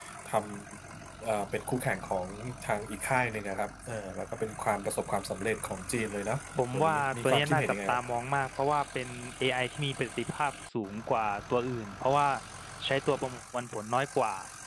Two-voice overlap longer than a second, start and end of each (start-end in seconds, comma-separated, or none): 6.7-8.0